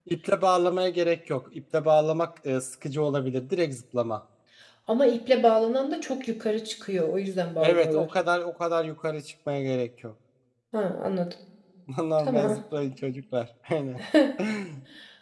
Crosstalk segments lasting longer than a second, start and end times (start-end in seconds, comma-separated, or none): none